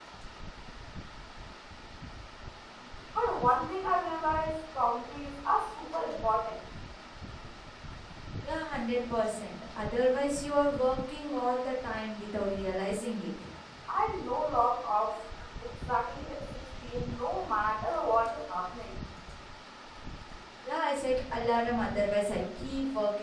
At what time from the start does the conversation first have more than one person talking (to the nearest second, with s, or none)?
none